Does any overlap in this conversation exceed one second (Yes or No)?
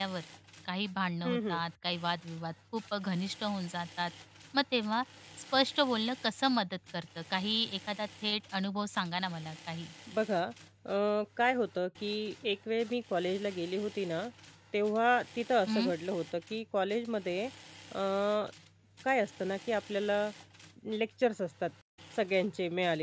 No